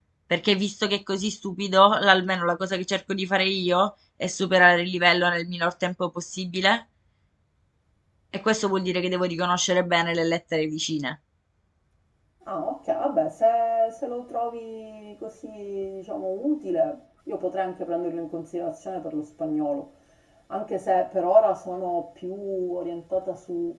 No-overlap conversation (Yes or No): Yes